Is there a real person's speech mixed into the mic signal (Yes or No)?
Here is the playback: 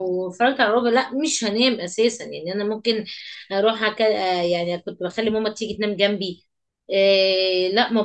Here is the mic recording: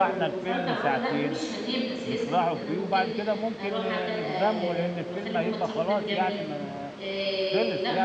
Yes